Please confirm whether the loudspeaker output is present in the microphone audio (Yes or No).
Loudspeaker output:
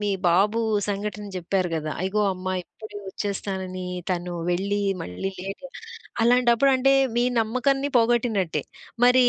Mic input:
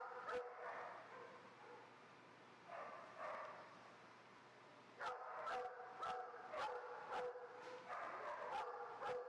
No